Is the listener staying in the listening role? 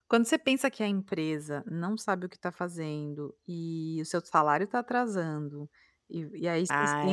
Yes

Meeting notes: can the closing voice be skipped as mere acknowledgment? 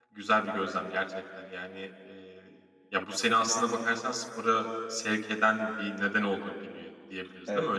No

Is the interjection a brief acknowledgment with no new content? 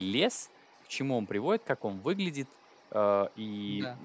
Yes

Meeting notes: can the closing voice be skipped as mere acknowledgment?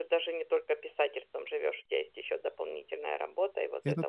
Yes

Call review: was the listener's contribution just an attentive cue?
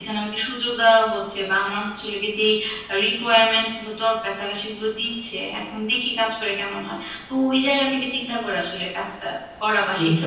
No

